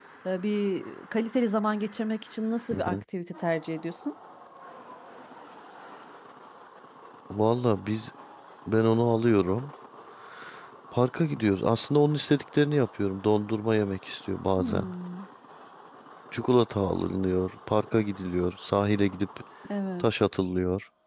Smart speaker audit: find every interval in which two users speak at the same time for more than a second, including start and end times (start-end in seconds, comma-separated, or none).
none